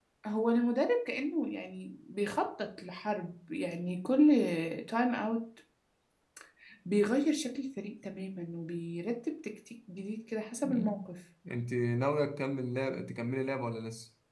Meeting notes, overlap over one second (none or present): none